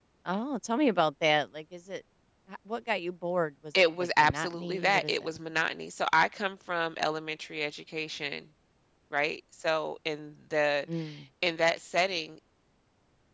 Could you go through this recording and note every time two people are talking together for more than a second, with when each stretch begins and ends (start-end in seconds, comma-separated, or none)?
4.0-5.3